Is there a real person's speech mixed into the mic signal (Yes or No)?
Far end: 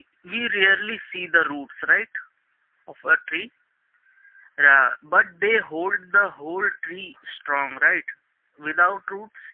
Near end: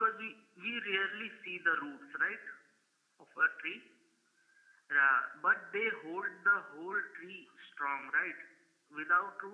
No